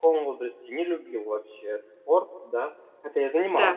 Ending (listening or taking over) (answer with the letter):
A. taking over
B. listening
B